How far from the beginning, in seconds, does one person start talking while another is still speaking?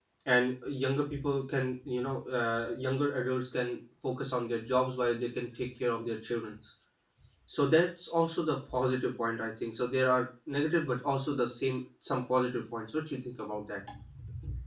none

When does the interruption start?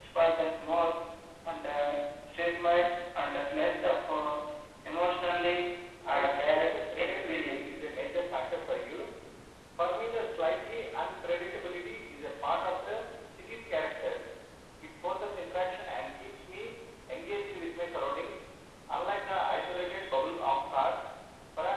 6 s

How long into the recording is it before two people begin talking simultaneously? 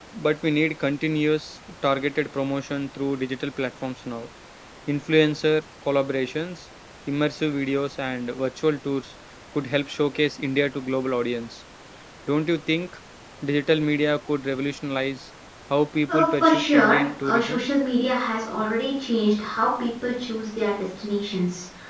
16 s

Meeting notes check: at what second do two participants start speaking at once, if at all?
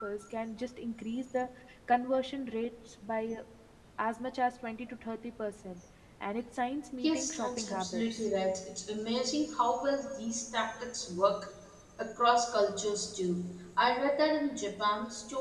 7 s

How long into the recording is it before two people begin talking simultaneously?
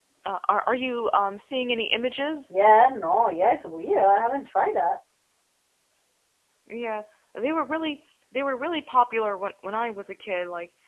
none

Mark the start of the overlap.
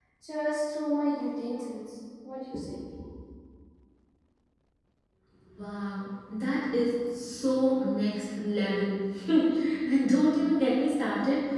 none

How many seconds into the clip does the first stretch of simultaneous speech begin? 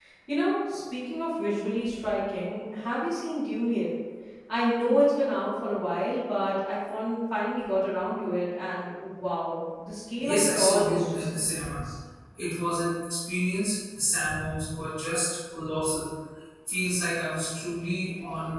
10 s

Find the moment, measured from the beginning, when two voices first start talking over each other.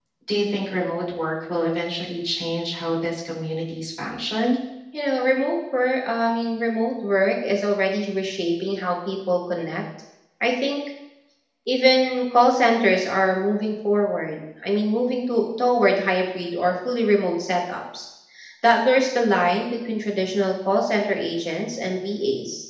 none

